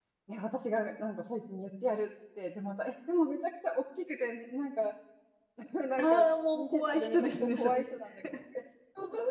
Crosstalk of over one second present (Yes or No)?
Yes